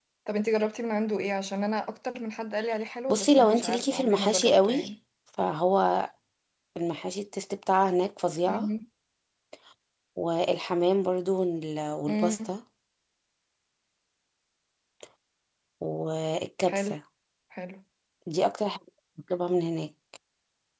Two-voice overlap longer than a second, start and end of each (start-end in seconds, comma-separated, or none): 3.1-4.9